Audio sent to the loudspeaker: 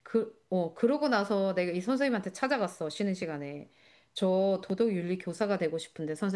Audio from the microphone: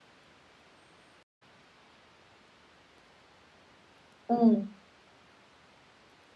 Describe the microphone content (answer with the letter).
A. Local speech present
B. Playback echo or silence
A